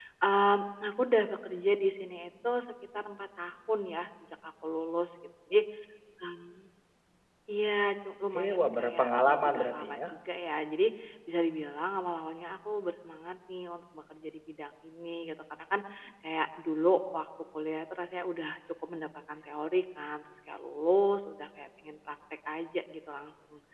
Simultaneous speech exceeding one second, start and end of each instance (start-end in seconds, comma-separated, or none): 8.3-10.0